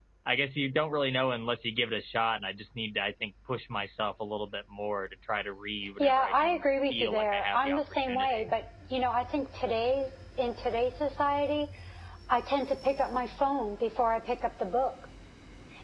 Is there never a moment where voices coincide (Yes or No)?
No